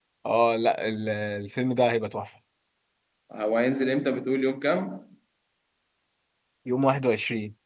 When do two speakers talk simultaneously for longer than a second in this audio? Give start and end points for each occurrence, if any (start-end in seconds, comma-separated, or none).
none